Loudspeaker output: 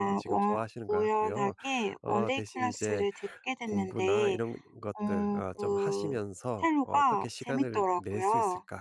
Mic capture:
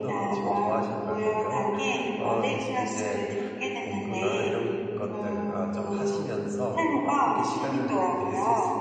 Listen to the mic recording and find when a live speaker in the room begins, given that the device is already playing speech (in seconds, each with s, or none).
none